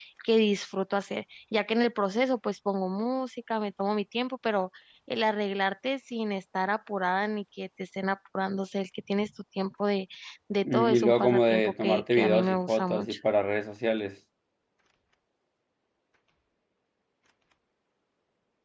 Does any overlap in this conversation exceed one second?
Yes, from 10.7 s

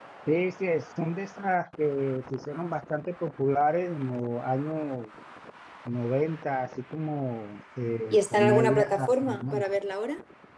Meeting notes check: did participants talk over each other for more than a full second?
Yes, from 8.1 s

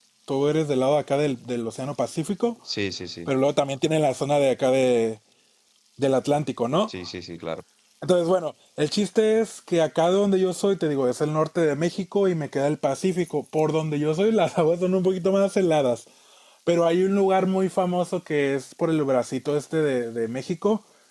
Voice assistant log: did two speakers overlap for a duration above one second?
No

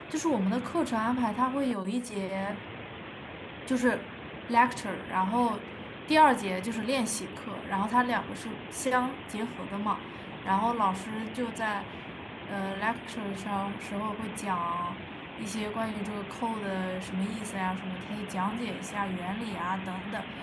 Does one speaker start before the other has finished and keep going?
No

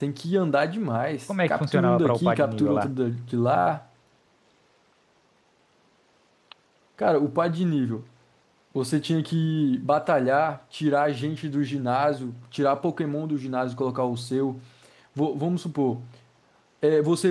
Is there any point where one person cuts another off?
Yes, from 1.3 s

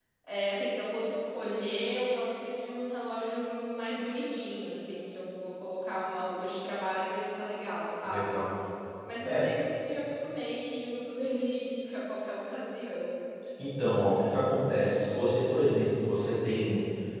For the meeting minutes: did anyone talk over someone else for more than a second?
No

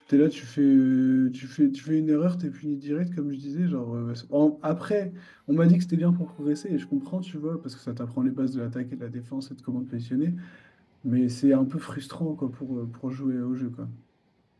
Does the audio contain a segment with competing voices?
No

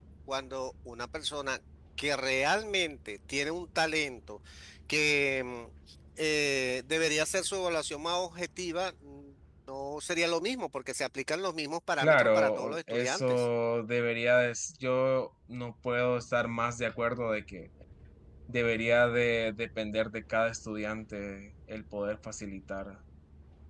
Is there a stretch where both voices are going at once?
Yes, from 12.0 s

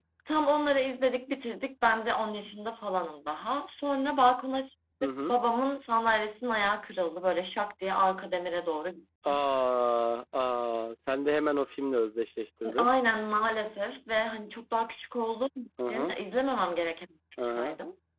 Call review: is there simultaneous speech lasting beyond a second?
No

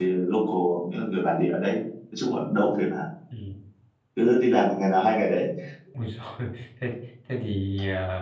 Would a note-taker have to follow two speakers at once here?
No

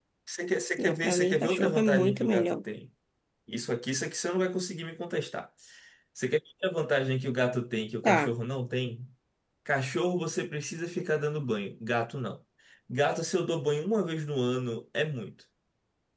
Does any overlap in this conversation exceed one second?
Yes, from 0.8 s

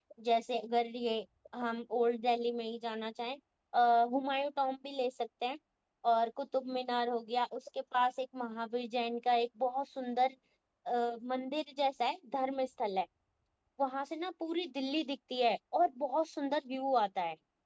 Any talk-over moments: No

